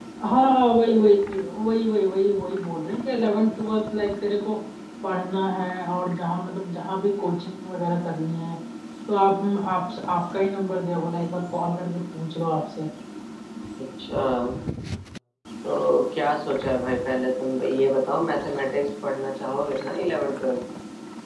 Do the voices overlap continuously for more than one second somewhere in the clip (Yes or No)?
No